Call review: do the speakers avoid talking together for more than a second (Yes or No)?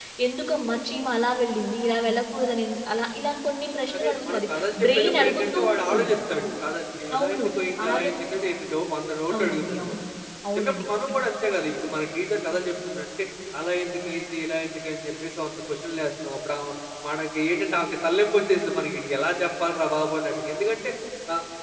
No